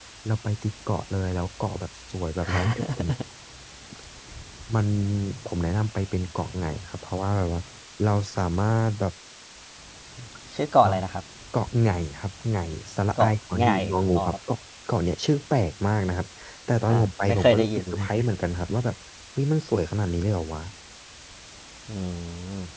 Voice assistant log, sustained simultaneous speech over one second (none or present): present